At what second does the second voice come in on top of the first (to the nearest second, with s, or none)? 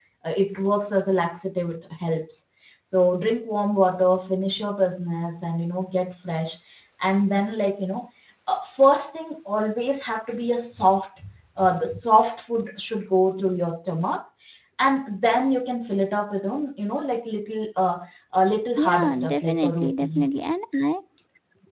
19 s